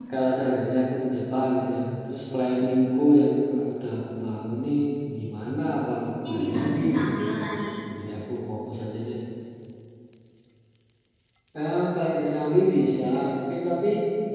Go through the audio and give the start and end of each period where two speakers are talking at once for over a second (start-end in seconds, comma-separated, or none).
6.3-7.7